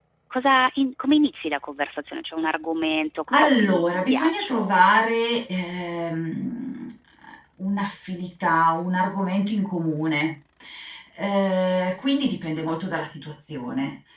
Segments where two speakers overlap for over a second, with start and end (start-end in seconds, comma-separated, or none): 3.3-4.9